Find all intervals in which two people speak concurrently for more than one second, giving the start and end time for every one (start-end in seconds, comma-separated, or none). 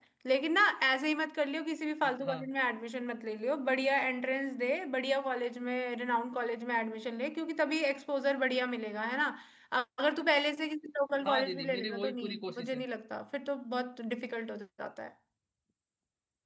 11.2-12.8